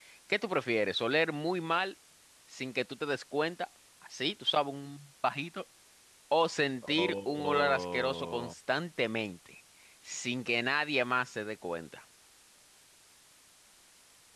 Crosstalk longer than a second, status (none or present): present